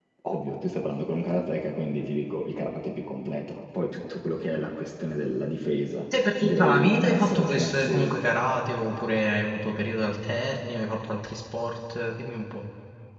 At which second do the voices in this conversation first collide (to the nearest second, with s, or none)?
6 s